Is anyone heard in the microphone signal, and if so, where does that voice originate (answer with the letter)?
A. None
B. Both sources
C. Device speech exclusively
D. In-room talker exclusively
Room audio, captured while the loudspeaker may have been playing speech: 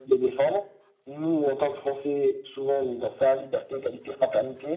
C